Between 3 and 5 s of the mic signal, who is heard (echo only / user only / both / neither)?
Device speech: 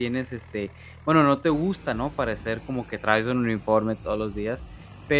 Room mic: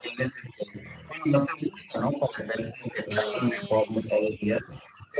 both